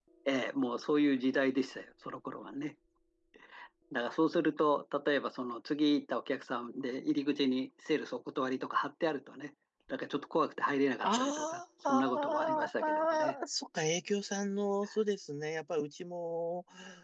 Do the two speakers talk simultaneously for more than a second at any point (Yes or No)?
Yes